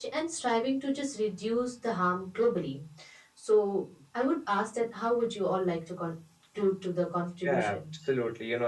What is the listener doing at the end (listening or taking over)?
taking over